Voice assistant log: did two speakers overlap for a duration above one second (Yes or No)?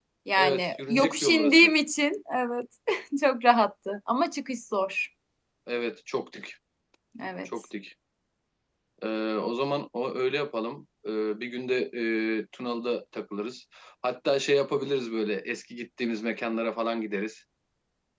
Yes